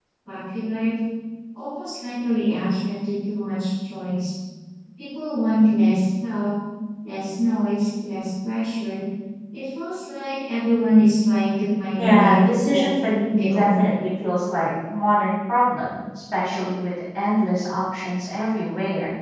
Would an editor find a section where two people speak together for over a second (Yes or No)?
Yes